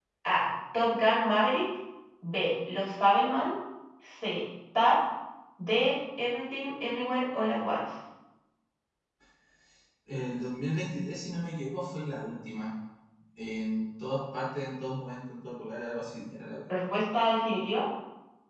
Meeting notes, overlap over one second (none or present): none